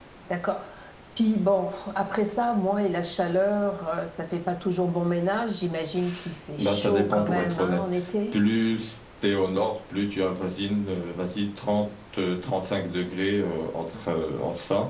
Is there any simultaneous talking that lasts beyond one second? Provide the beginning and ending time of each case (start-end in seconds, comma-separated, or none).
6.6-7.8